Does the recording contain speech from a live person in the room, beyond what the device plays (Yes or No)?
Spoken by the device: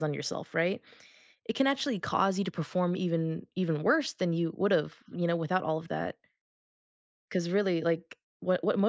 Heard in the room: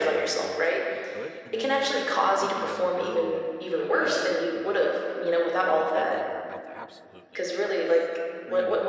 Yes